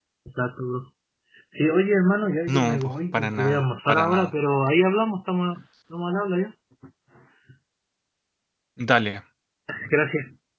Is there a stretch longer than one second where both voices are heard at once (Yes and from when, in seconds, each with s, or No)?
Yes, from 2.5 s